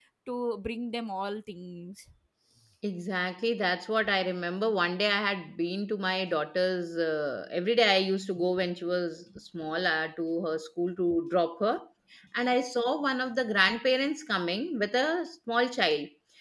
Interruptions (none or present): none